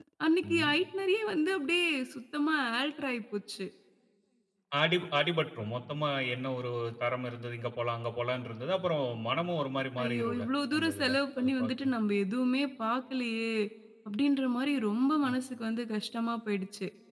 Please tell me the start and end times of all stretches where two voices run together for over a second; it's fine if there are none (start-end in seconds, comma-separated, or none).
10.0-11.9